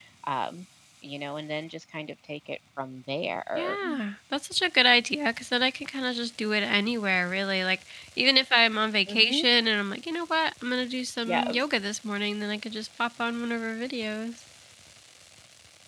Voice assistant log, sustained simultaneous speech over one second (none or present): none